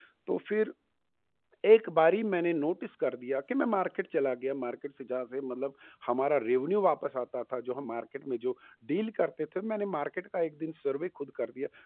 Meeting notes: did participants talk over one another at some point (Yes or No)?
No